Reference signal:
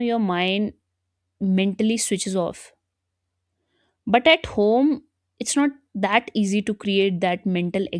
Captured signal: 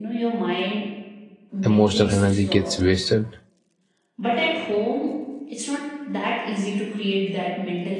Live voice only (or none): emotional energy gets wasted